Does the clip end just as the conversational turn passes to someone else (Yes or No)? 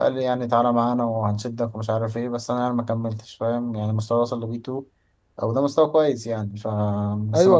Yes